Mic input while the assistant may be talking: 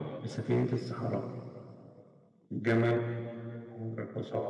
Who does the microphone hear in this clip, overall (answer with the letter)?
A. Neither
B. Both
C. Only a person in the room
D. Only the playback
D